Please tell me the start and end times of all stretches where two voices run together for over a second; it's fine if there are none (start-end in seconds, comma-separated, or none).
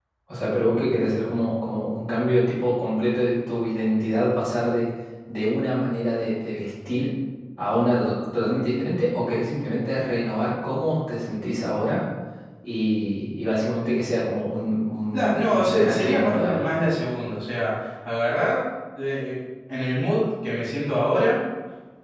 15.1-16.7